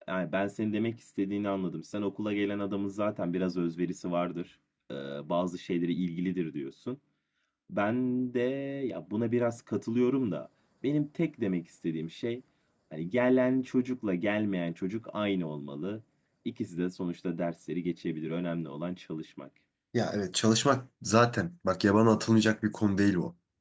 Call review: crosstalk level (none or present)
none